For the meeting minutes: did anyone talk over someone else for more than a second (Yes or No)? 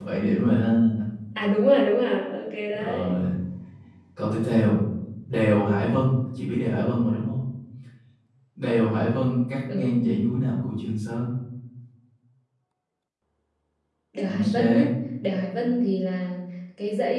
No